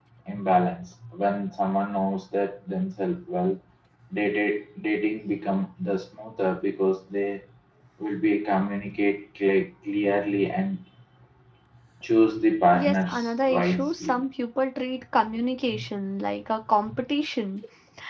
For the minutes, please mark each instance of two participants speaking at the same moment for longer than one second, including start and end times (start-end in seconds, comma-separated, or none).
12.7-14.2